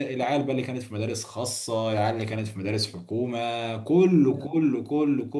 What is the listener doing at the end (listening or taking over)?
listening